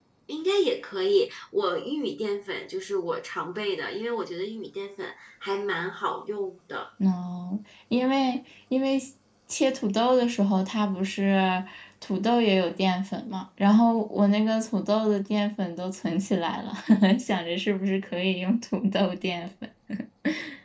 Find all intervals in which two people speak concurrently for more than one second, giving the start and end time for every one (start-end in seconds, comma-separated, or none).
none